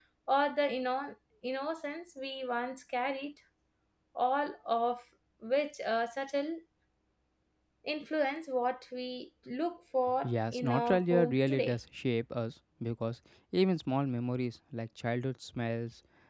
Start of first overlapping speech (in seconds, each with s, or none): 10.2 s